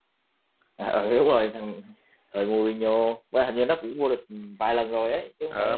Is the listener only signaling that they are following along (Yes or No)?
No